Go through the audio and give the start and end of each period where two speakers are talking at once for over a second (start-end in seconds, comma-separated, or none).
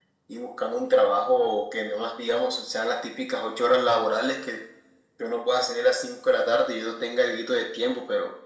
none